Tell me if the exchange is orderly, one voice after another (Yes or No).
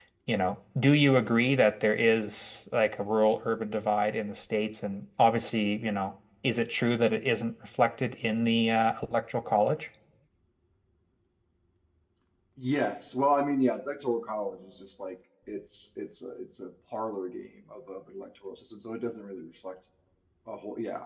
Yes